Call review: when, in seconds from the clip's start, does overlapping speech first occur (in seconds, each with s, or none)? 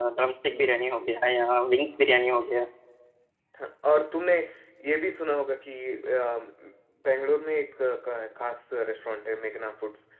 none